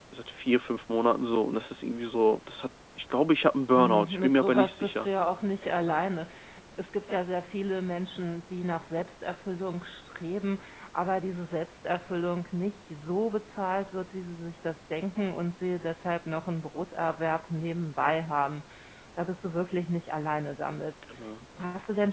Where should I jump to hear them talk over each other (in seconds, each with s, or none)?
3.8 s